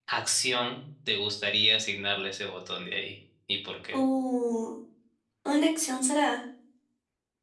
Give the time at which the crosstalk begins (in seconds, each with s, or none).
none